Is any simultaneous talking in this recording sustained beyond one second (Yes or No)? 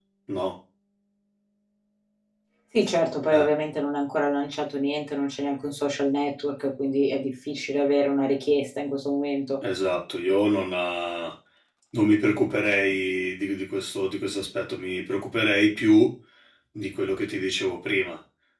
No